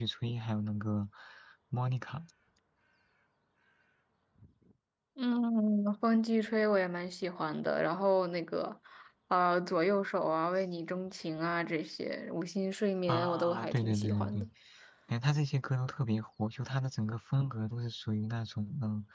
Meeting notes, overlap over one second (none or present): present